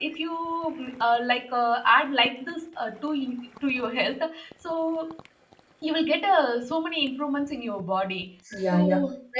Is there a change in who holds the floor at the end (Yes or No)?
Yes